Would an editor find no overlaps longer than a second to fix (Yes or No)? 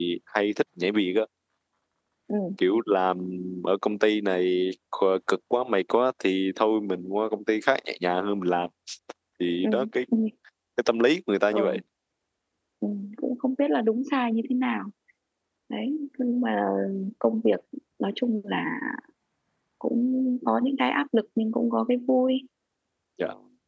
Yes